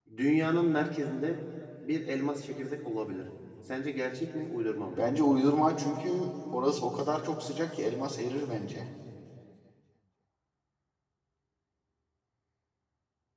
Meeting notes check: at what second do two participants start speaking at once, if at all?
none

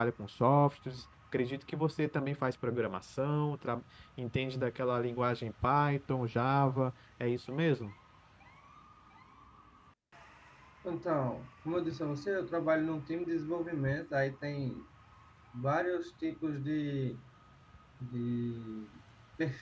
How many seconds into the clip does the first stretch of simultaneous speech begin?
none

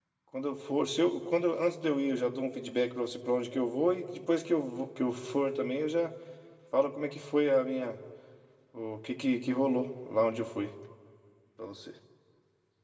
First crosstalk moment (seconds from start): none

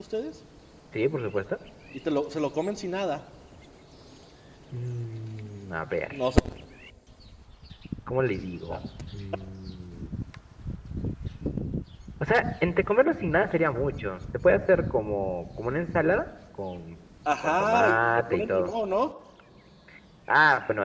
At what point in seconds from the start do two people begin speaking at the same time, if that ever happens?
17 s

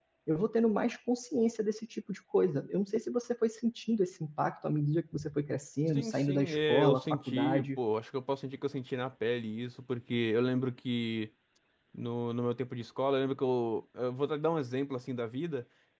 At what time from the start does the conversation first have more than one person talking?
6 s

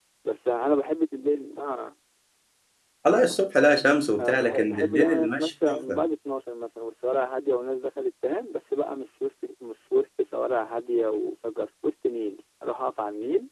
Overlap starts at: 4 s

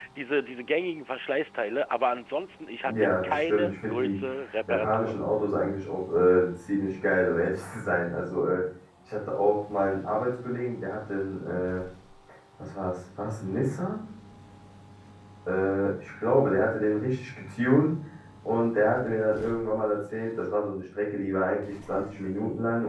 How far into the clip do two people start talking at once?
3 s

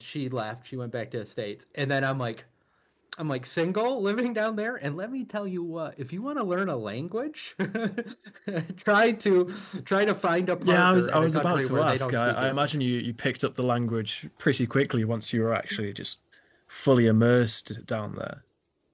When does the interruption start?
11 s

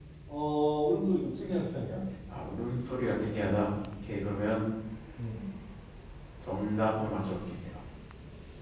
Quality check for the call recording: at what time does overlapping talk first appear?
none

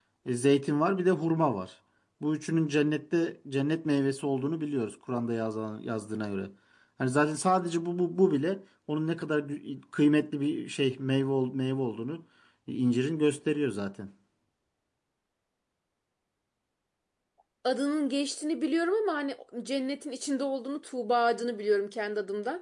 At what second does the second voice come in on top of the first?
none

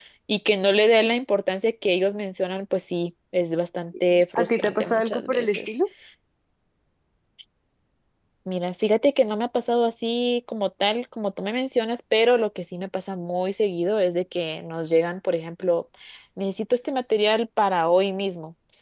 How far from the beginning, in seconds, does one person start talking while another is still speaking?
4 s

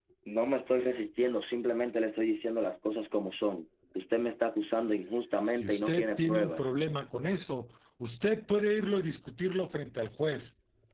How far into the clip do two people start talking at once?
5 s

